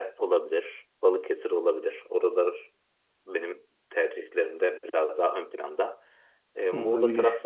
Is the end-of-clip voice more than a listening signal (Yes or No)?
No